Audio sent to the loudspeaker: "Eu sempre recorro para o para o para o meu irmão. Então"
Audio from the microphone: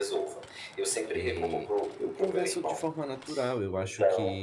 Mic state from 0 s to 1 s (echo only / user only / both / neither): echo only